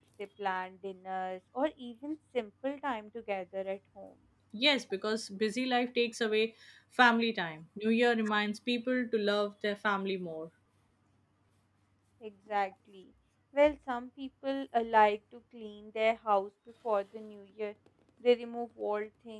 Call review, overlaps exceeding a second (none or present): none